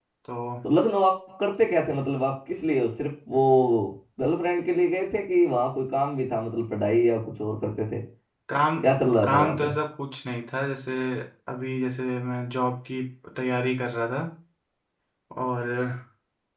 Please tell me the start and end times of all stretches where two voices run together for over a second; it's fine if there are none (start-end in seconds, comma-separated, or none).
none